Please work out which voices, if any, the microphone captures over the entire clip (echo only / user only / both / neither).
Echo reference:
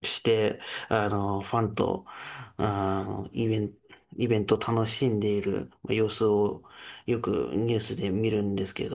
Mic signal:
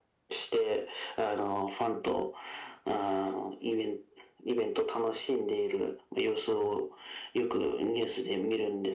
echo only